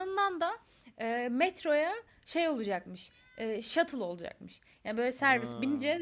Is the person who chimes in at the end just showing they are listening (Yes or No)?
Yes